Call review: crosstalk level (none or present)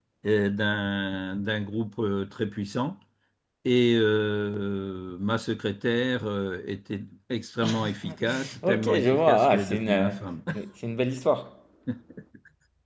present